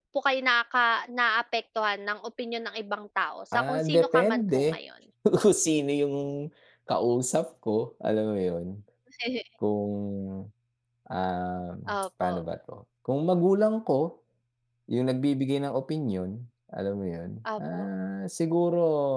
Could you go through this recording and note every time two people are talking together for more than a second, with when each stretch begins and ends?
3.5-4.8

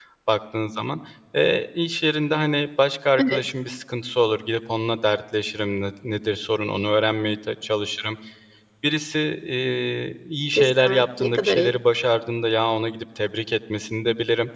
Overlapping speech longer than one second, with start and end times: 10.5-11.7

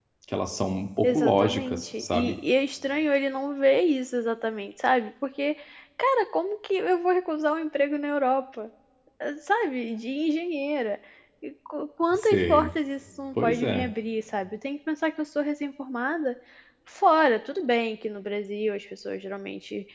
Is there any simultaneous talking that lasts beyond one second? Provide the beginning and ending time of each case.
1.0-2.4

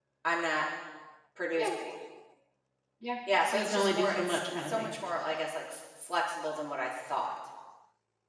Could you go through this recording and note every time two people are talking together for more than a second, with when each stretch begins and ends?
3.5-4.9

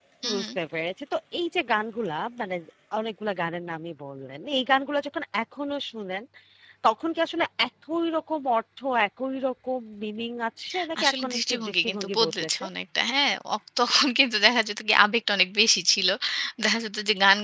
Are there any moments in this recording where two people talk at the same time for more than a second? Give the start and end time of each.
11.0-12.6

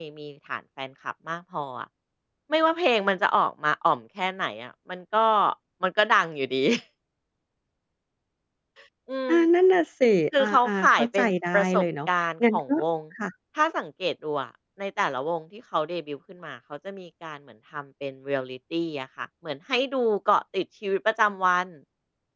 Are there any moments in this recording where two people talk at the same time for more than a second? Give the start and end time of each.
10.4-11.8

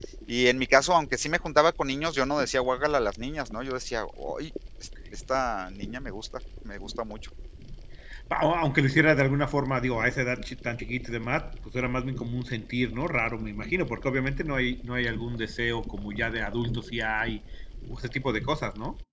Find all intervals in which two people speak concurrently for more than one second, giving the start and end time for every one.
none

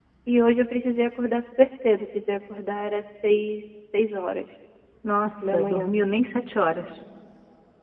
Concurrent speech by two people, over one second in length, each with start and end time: none

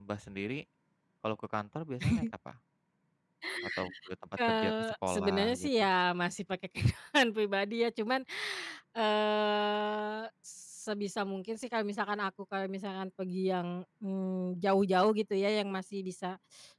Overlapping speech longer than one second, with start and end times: 4.5-5.8

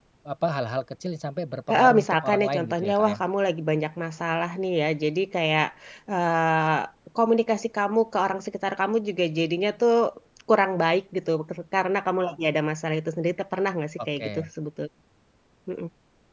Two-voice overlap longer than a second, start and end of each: 1.7-3.2

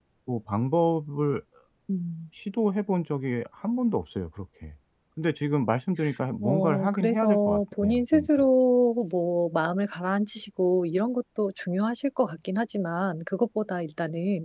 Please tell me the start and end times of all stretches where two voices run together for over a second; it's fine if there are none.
6.4-8.3

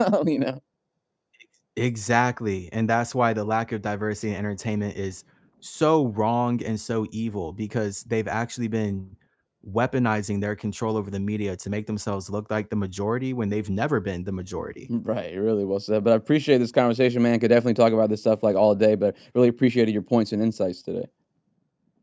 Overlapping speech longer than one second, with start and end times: none

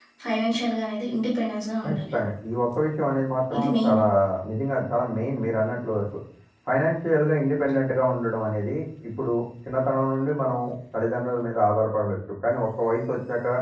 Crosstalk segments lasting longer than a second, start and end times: none

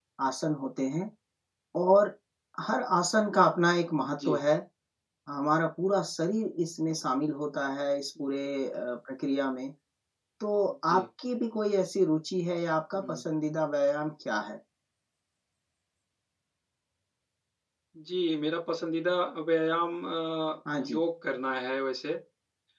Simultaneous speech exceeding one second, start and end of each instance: none

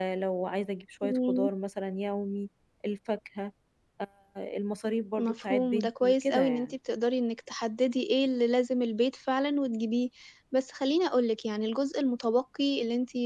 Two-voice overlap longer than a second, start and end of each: 5.2-6.7

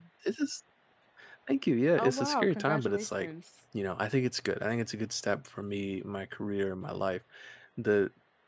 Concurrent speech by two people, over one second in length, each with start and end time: 2.0-3.3

